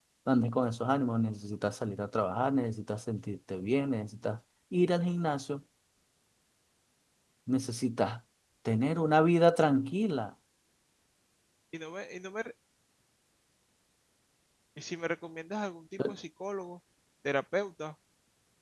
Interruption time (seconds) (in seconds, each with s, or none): none